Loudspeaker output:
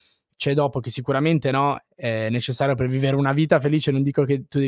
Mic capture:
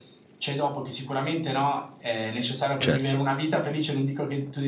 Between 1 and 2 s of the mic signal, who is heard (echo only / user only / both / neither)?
echo only